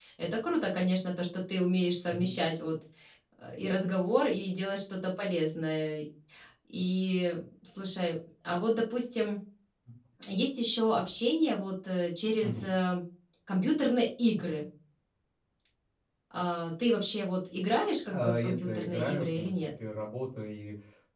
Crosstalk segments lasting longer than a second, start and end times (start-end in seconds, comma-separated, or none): 18.1-19.5